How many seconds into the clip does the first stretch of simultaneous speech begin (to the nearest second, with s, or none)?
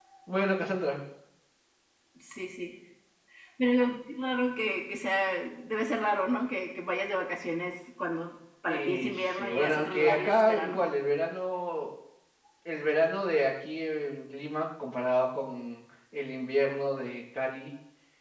9 s